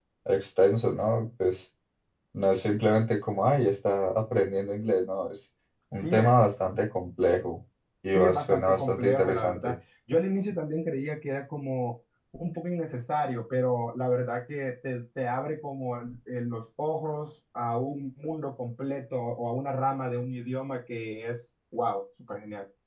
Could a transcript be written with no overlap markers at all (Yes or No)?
No